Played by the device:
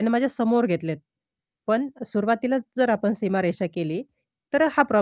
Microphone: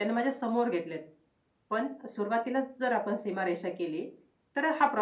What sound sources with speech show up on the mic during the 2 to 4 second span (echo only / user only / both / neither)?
echo only